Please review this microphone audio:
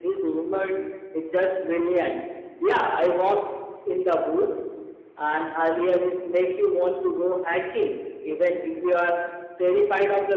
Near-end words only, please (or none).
none